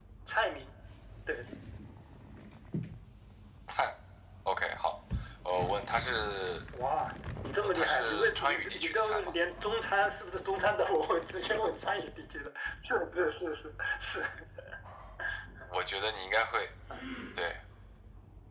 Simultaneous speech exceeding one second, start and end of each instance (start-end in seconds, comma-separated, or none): 7.8-9.3